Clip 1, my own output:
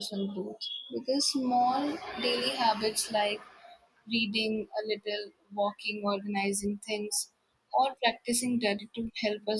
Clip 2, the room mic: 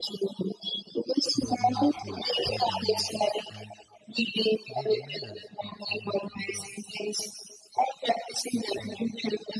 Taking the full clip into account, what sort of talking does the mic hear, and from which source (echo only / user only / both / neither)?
both